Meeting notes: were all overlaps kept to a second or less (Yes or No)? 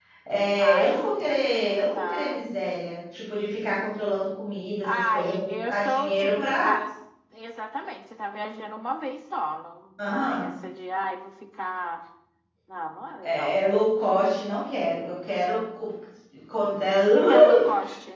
No